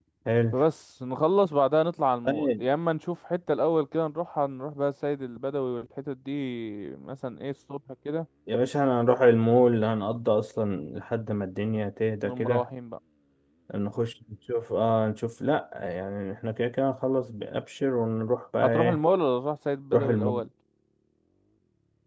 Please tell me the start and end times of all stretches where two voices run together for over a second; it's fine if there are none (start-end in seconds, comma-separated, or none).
none